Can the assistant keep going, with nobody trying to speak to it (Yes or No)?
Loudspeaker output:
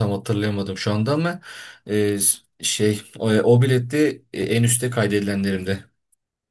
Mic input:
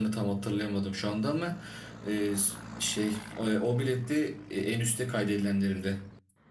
Yes